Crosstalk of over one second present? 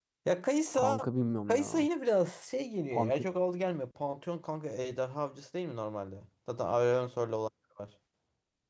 No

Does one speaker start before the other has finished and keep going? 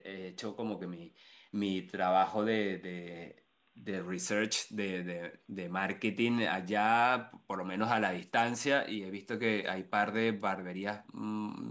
No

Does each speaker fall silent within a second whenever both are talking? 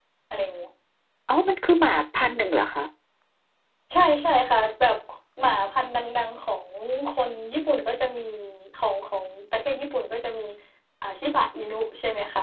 Yes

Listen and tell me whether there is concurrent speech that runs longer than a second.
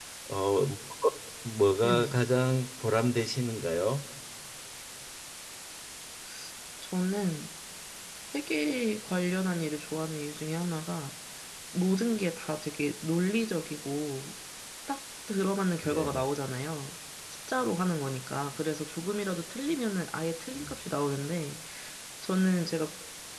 No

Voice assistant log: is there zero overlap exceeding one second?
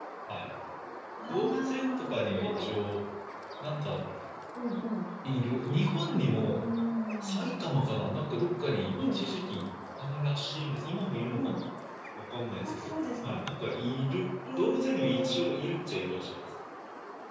No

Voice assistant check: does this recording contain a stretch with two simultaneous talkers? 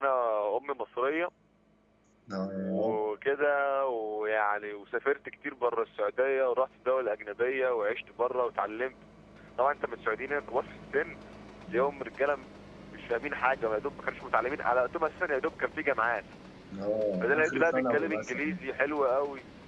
Yes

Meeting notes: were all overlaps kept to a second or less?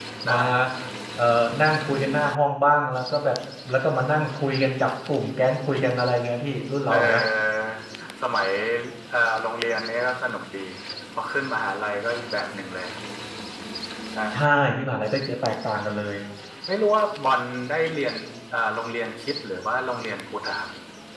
Yes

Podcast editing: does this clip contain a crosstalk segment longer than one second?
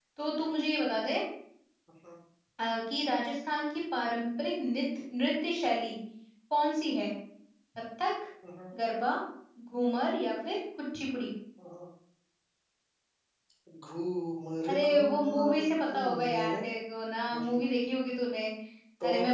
Yes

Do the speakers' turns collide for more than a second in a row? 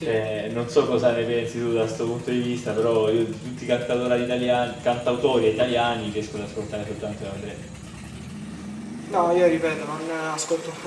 No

